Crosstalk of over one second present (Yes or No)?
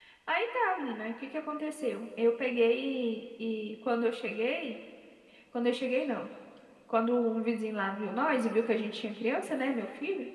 No